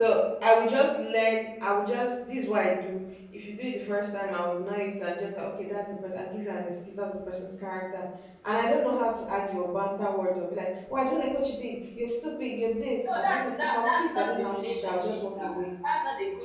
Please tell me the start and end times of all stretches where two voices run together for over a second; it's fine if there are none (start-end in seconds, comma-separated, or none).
13.2-15.6